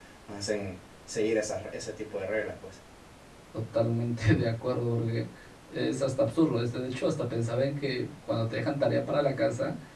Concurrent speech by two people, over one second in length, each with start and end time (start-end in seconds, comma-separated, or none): none